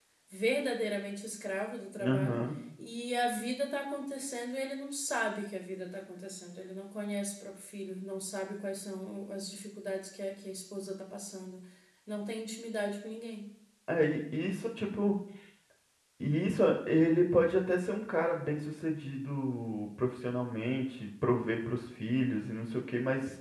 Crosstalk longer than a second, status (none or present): none